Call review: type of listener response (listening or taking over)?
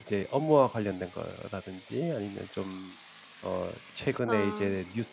listening